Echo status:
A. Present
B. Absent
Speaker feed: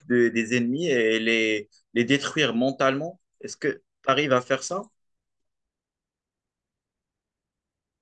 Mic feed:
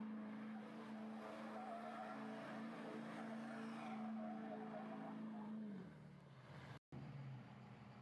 B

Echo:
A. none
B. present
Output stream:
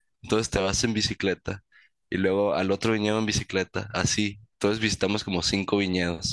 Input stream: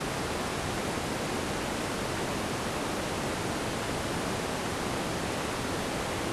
A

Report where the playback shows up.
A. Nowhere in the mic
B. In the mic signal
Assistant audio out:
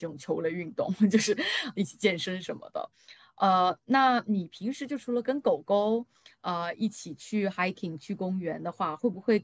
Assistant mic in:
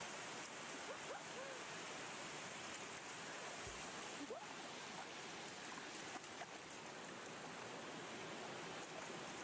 A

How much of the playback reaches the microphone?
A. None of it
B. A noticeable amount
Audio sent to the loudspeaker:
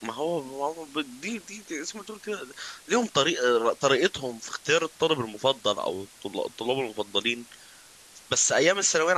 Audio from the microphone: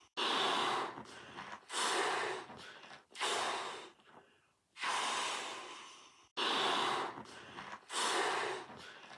A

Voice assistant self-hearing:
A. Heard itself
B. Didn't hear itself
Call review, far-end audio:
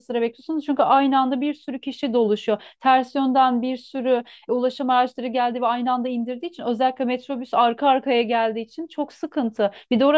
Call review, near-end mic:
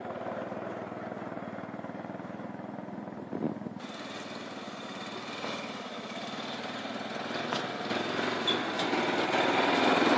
B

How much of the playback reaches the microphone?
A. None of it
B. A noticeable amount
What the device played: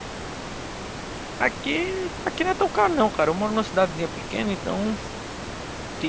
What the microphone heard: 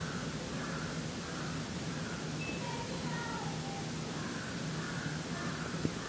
A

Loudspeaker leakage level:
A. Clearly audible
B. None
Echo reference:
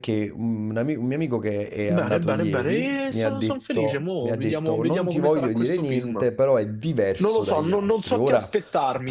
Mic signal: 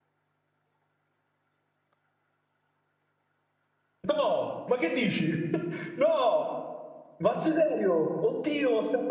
B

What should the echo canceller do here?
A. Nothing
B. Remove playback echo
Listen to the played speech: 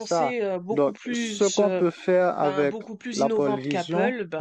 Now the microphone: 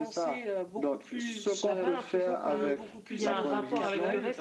B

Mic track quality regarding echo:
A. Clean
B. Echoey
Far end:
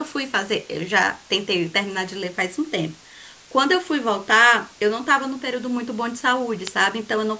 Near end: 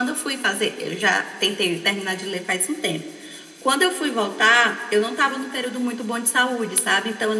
B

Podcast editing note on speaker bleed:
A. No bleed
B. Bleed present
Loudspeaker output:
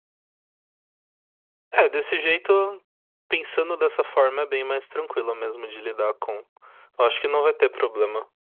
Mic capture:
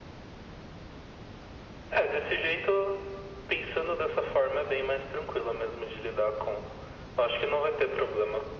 B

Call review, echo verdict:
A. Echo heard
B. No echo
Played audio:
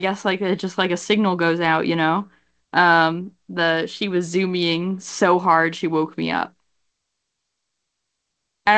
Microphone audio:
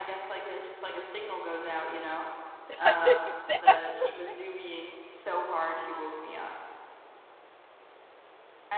A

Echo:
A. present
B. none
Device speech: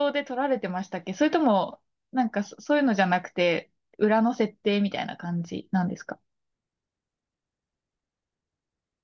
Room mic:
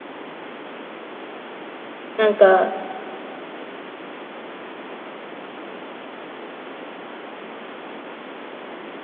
B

